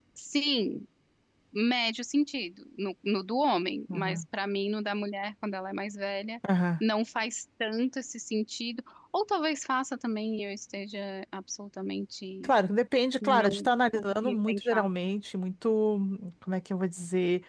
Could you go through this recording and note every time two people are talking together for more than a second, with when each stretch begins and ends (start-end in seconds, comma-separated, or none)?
13.2-14.8